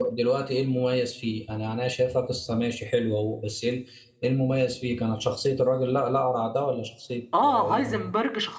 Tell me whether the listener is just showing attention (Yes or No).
No